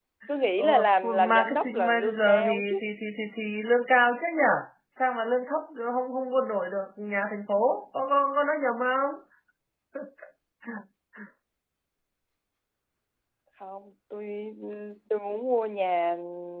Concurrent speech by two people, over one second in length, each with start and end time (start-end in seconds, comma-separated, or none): 0.6-2.8